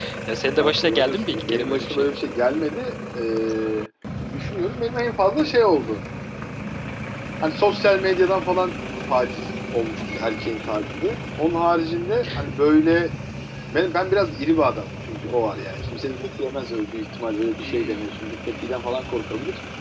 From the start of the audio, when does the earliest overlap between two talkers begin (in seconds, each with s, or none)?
0.6 s